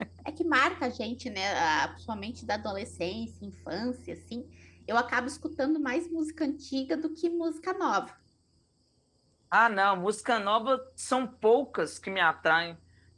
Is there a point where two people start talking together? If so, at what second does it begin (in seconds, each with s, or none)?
none